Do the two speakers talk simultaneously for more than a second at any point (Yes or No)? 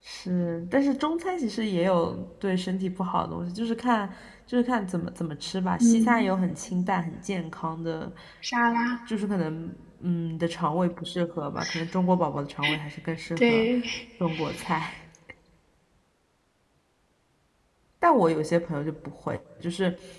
No